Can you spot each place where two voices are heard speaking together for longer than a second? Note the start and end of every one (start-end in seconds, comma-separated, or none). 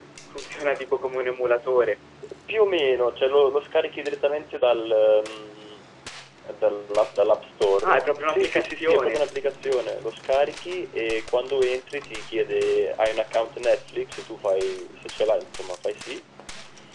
7.8-9.2